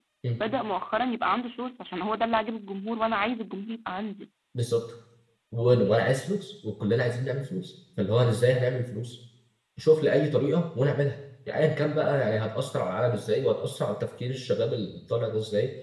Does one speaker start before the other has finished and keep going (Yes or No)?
No